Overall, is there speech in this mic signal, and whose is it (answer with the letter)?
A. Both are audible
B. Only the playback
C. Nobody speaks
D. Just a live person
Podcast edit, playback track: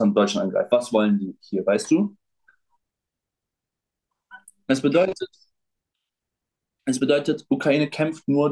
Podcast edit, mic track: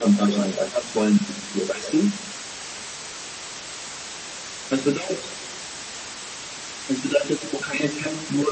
B